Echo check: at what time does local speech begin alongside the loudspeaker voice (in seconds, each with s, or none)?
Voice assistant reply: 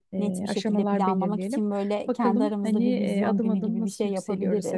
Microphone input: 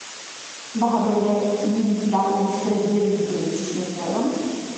0.8 s